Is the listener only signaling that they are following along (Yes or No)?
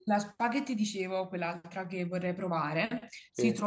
Yes